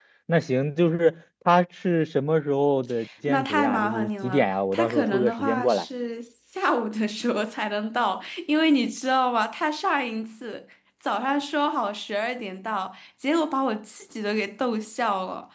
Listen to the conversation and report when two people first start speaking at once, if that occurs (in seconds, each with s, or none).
3.3 s